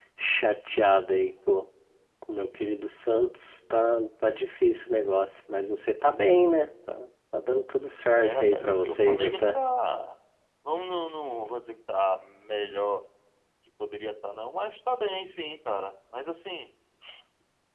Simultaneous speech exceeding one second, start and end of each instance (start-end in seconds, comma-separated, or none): 8.1-9.6